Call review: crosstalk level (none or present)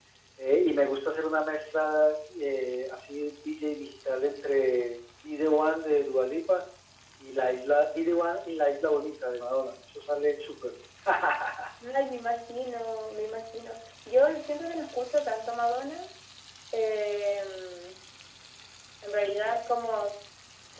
none